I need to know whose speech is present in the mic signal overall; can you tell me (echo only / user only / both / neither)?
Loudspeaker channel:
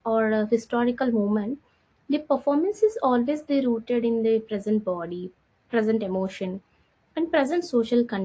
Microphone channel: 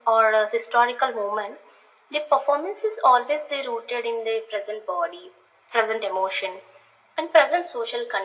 echo only